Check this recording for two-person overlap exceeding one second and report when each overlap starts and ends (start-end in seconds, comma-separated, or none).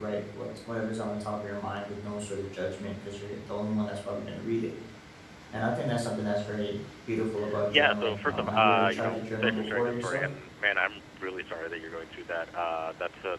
7.7-10.2